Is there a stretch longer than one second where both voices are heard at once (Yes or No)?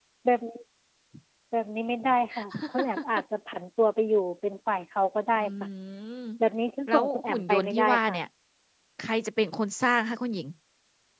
Yes